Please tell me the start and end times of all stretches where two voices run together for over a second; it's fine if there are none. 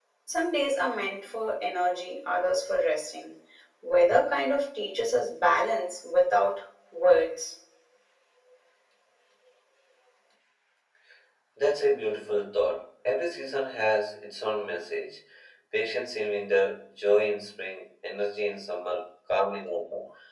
none

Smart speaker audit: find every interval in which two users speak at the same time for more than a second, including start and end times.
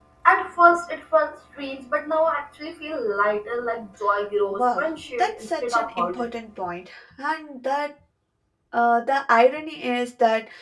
4.5-6.3

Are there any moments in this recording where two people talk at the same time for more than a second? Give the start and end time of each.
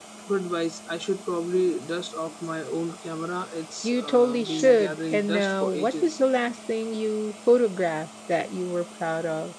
3.8-6.2

